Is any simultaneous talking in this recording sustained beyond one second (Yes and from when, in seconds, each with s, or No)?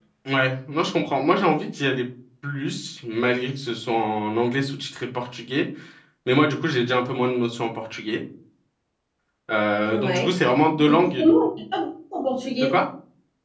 No